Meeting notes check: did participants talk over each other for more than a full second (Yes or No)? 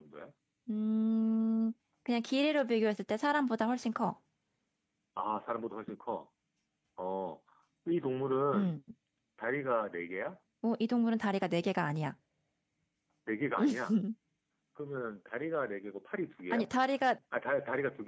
No